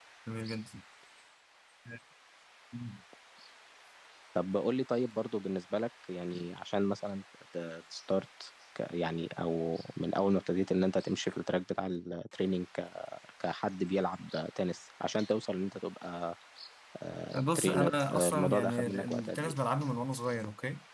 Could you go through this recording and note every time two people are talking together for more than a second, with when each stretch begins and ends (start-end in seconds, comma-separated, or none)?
17.4-19.5